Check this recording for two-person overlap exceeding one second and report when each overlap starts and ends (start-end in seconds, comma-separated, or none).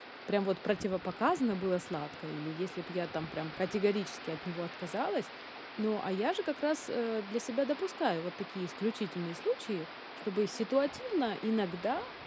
none